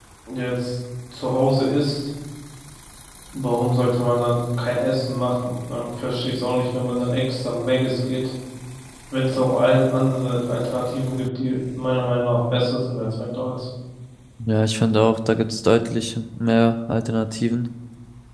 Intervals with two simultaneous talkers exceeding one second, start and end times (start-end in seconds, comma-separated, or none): none